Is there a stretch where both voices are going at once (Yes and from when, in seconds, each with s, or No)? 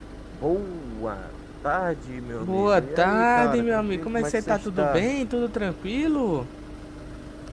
Yes, from 2.4 s